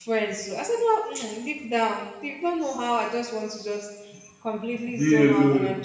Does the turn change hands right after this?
No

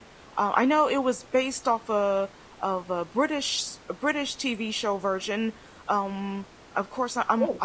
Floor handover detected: No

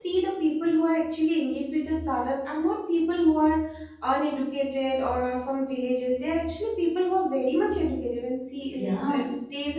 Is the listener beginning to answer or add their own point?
No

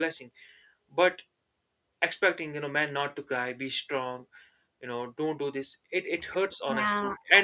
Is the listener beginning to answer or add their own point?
Yes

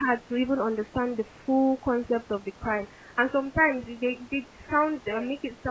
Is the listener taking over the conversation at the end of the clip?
No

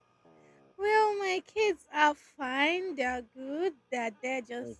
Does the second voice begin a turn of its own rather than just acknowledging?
No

